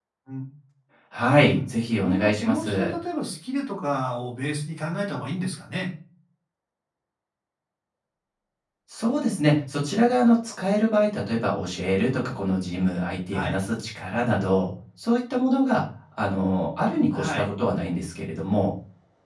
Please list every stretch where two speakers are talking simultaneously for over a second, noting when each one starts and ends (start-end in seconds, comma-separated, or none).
1.4-2.9